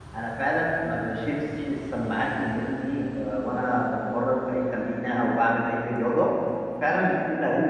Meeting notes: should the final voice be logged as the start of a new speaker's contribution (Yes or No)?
No